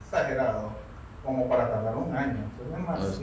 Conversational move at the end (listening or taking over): taking over